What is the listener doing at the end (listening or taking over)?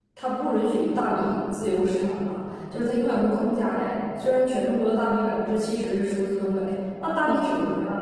listening